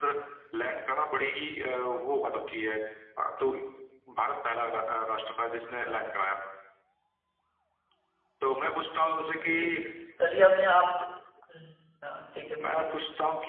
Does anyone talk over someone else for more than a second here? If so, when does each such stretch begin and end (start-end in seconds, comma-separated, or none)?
none